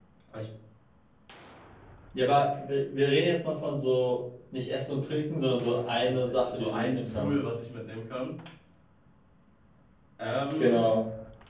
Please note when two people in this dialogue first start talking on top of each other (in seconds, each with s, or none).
6.0 s